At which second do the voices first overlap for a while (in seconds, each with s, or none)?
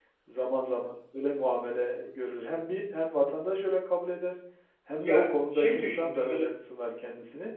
5.0 s